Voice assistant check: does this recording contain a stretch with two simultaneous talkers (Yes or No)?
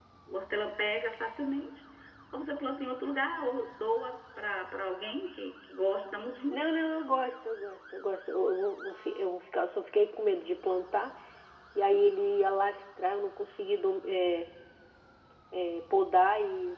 No